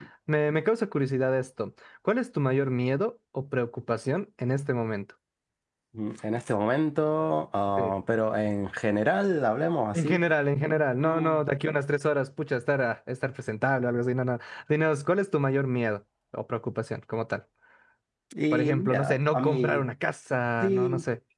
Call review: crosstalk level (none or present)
present